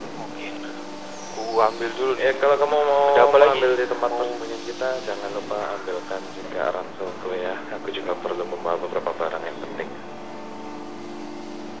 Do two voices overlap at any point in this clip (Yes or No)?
Yes